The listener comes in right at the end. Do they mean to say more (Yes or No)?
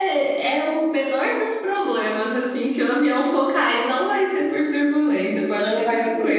Yes